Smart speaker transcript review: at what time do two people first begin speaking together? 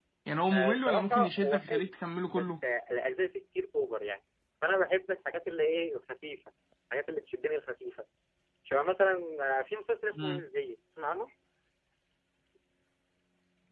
0.5 s

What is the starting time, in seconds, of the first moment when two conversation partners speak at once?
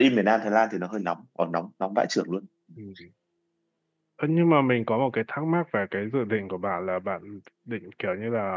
none

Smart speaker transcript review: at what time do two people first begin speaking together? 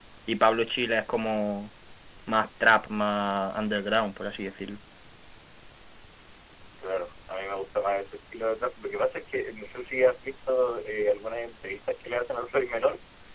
none

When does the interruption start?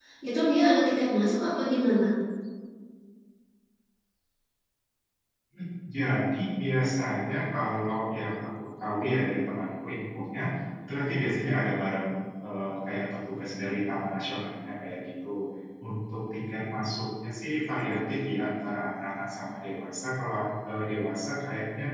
none

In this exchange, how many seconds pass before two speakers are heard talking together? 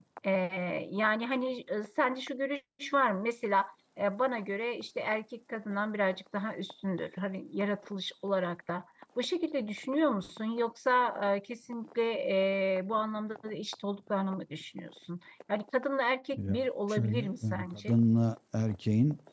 16.3 s

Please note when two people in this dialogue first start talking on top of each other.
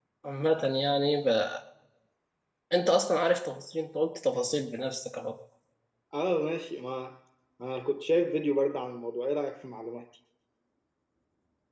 none

